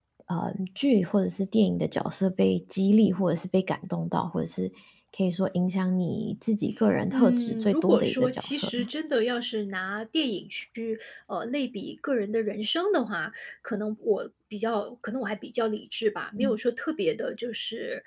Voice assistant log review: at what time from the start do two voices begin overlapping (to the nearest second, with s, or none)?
7 s